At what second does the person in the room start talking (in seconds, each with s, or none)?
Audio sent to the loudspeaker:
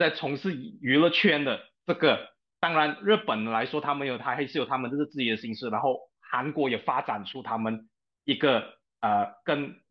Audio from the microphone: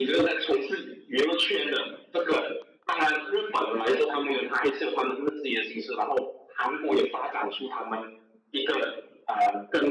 none